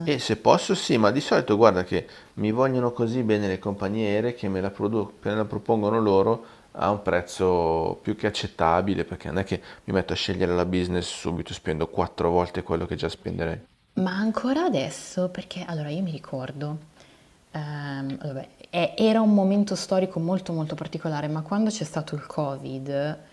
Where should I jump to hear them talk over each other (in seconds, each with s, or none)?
none